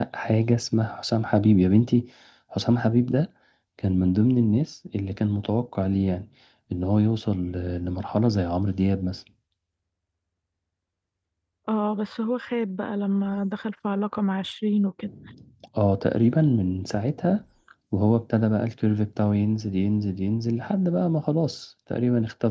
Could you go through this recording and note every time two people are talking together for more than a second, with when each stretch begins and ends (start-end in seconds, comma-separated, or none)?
none